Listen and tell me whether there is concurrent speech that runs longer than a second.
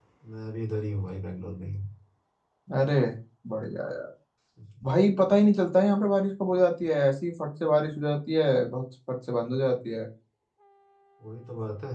No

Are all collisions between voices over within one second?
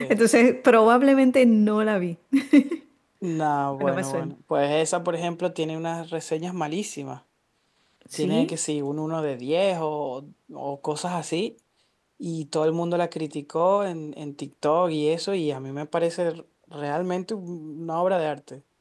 Yes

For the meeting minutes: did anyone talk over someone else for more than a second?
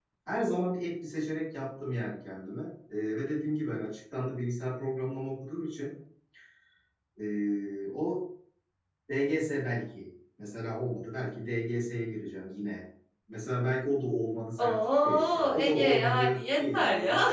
Yes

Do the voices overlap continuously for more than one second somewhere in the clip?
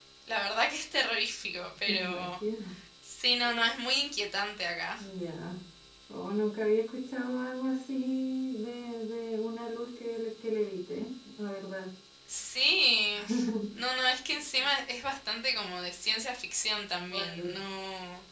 No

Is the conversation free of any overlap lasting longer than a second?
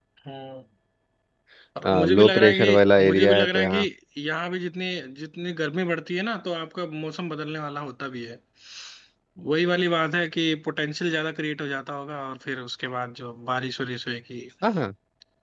No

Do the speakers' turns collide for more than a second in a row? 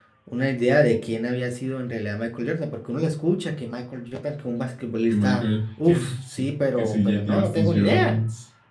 Yes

